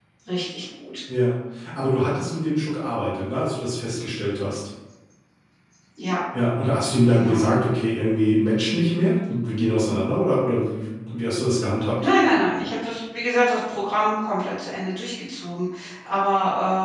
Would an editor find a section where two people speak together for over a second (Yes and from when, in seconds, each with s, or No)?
No